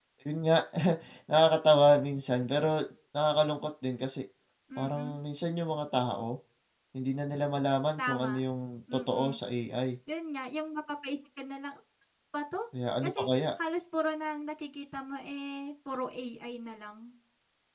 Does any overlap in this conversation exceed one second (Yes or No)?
No